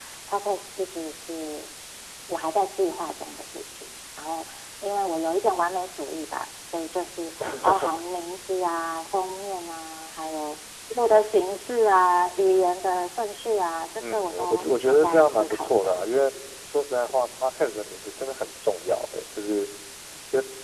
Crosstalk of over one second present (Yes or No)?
Yes